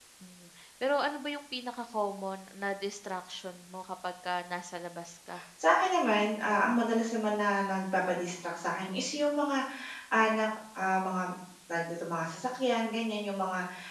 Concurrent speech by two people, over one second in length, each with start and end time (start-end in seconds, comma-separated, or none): none